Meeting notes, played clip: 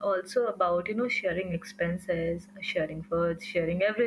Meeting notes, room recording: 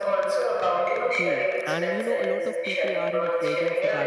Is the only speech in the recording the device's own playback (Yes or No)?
No